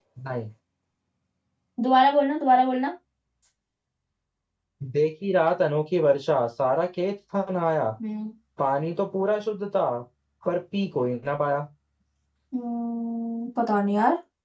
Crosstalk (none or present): none